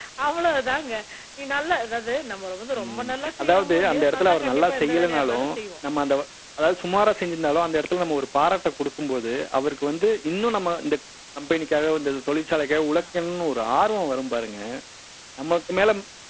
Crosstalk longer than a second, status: present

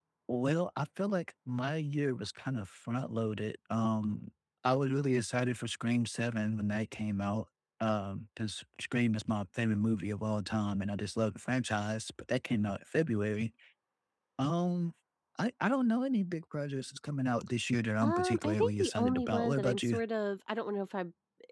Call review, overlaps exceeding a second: present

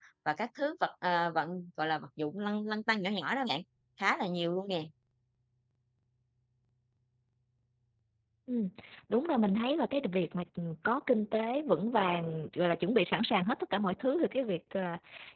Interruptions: none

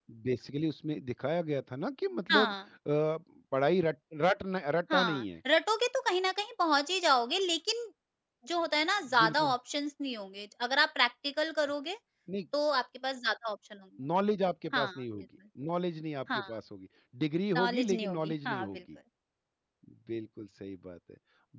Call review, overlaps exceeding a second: present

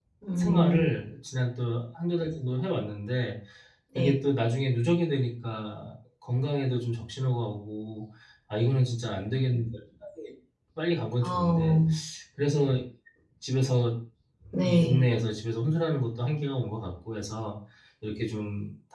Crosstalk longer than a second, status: none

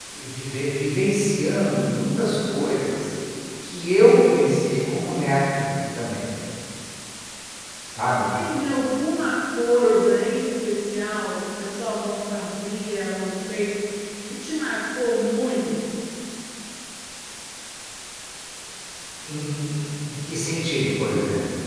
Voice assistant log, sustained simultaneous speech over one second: none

